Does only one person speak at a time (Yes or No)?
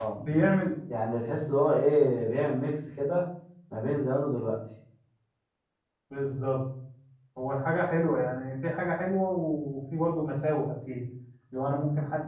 Yes